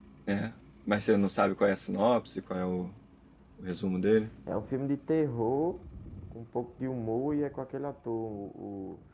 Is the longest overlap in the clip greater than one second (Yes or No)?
No